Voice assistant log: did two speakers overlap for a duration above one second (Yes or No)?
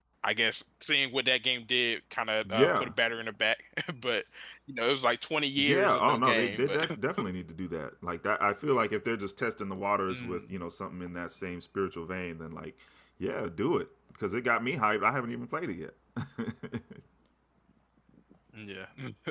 Yes